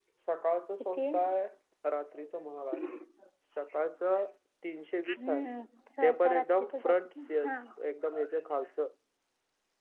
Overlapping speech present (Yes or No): Yes